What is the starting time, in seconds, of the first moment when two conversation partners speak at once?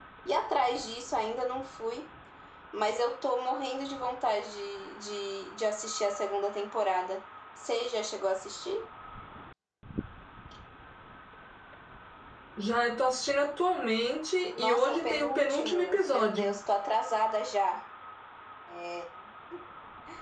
14.6 s

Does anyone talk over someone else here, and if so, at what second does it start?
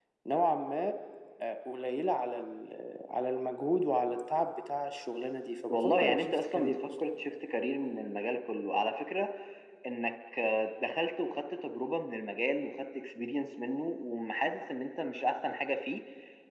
5.7 s

